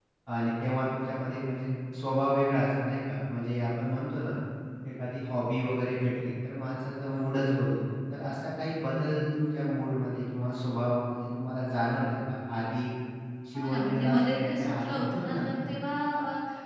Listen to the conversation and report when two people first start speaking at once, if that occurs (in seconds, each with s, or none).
13.5 s